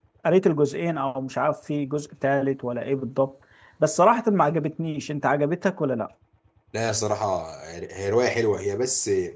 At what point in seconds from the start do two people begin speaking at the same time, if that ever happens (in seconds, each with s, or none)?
none